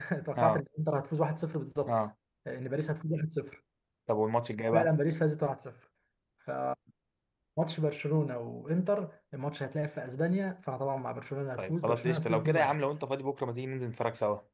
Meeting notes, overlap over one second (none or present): present